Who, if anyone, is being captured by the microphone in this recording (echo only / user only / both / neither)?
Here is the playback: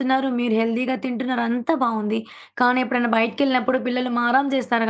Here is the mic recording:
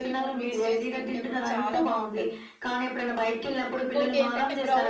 both